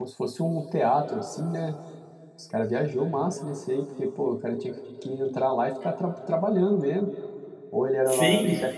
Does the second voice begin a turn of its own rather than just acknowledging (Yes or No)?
Yes